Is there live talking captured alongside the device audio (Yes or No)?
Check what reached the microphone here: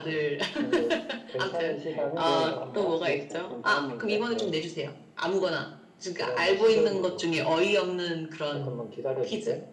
Yes